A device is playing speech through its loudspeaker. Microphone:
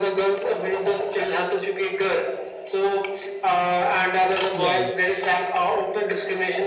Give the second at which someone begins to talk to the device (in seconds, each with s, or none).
4.5 s